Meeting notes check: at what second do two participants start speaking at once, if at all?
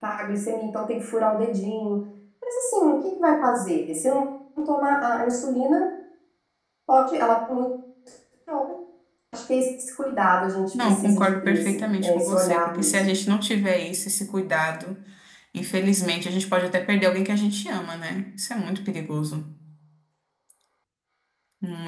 10.6 s

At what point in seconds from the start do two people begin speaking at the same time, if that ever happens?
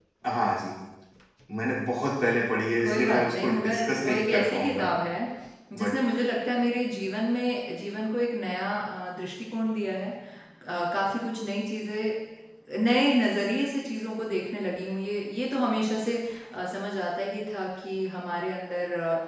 2.8 s

